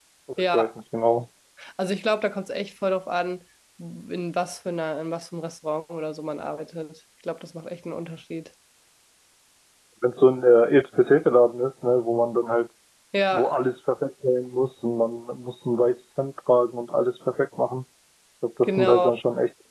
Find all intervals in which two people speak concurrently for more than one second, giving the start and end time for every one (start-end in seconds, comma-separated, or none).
none